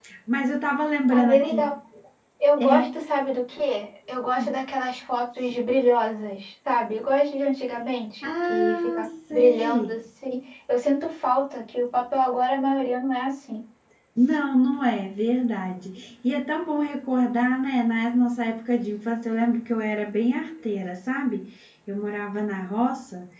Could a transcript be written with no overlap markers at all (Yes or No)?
No